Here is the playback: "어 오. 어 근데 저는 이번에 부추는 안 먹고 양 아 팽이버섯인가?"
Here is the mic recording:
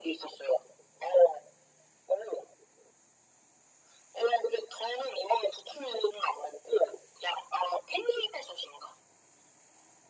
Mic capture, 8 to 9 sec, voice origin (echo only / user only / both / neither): echo only